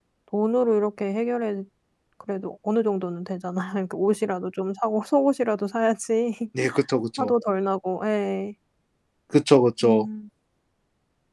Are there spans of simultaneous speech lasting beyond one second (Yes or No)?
No